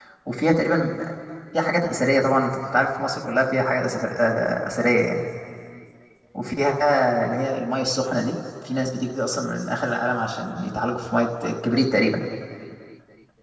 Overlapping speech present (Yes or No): No